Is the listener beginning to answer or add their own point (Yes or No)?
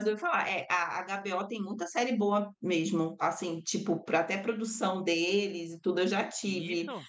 No